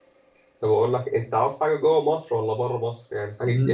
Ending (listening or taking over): listening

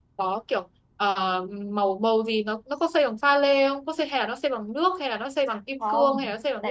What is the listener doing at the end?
taking over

